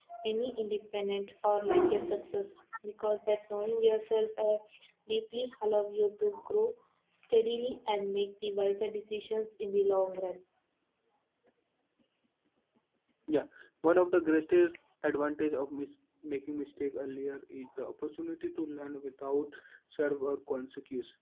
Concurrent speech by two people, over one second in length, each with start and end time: none

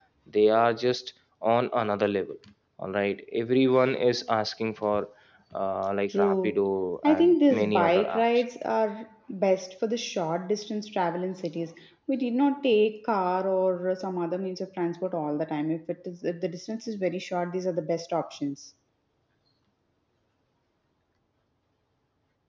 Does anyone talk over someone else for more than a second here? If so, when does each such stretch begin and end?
7.0-8.2

